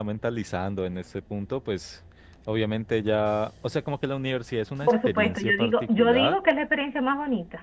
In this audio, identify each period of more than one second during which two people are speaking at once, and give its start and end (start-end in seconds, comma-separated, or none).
4.8-6.3